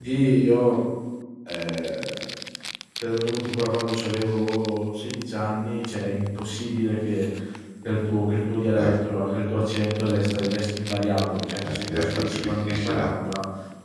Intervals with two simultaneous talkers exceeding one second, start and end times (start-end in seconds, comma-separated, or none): 11.7-13.1